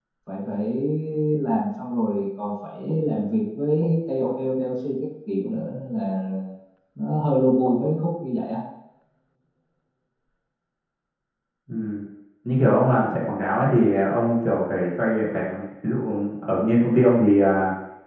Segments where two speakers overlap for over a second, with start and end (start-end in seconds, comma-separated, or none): none